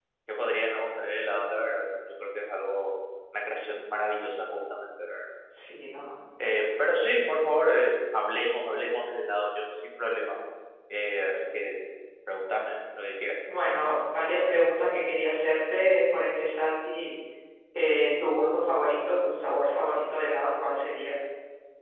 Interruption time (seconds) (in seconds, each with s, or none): none